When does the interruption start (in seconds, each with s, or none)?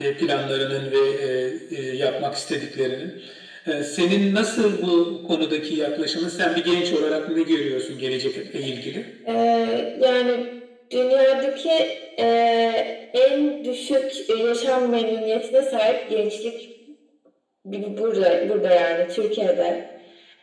none